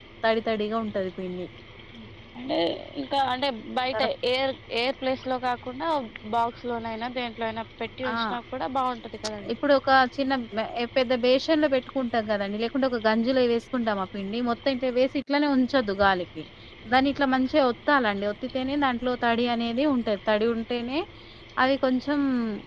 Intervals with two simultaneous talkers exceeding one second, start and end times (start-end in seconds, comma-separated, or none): none